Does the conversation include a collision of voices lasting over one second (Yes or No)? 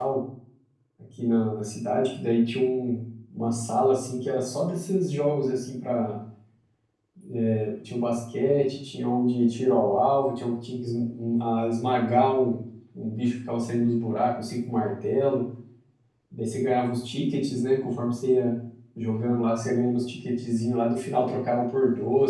No